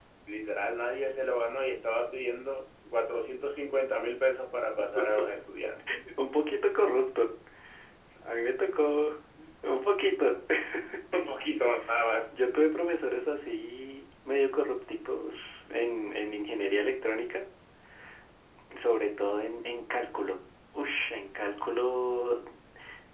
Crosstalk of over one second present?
No

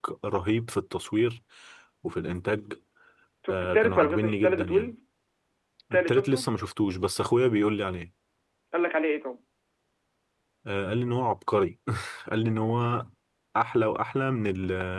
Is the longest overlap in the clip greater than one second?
Yes, from 3.5 s

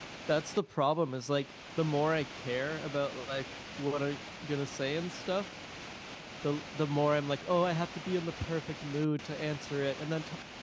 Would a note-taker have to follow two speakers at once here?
No

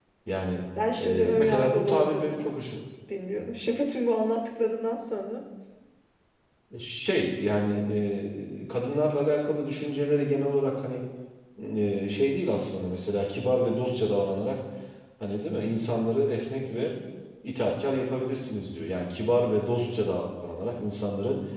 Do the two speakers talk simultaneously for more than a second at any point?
Yes, from 1.0 s

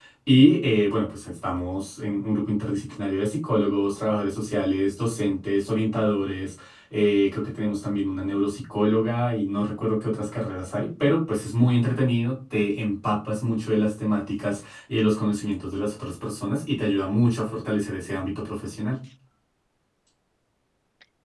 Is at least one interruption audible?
No

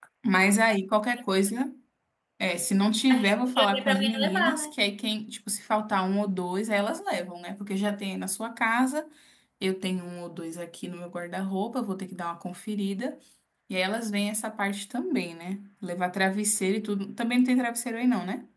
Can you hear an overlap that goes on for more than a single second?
Yes, from 3.1 s

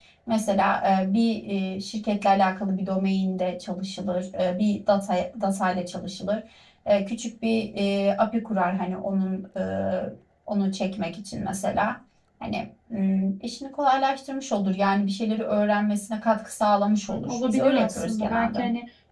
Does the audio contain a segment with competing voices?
Yes, from 17.1 s

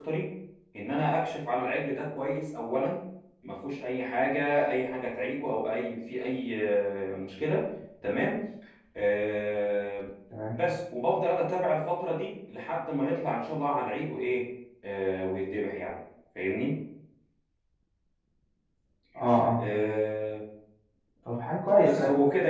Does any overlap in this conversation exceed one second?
No

